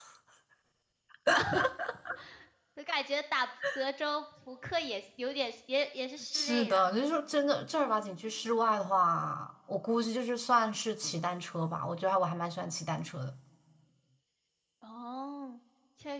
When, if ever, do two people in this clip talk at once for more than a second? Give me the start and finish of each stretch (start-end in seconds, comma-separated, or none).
none